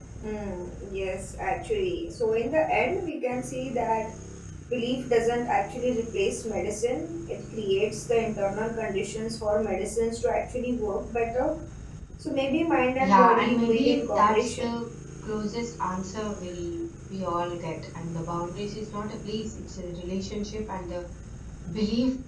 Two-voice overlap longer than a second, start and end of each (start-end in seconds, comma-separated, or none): 13.0-14.8